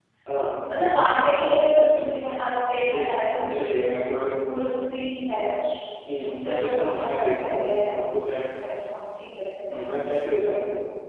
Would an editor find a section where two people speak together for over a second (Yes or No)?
Yes